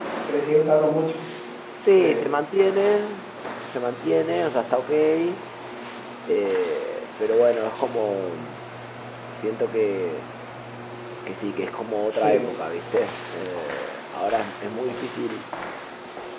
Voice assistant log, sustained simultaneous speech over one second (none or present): none